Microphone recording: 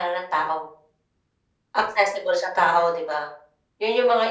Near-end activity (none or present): none